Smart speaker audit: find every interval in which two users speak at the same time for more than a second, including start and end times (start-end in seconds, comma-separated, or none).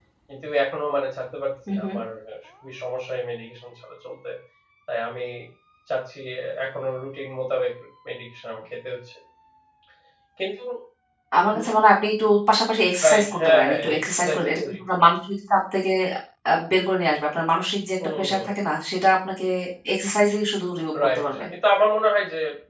13.0-14.6